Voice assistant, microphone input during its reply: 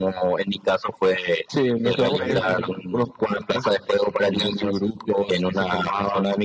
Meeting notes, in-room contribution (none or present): present